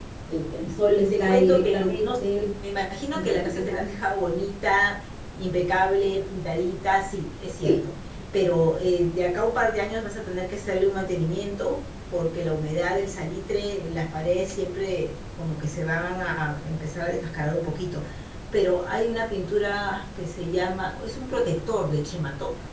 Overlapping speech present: Yes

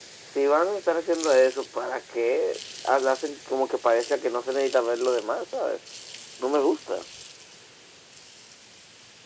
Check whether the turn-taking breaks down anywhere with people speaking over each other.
No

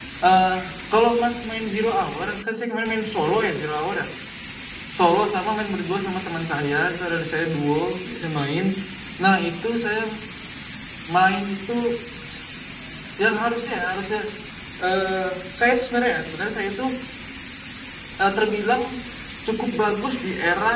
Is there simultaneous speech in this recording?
No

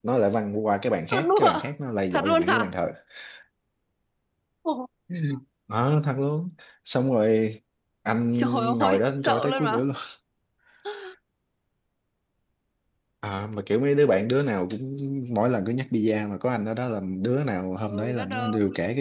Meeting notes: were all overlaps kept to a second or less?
No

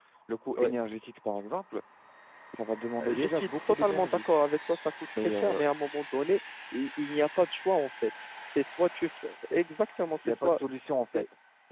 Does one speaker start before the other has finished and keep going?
Yes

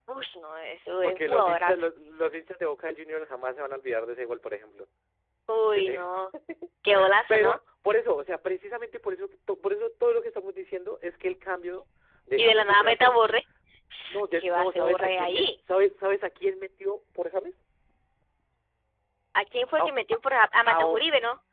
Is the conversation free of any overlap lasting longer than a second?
No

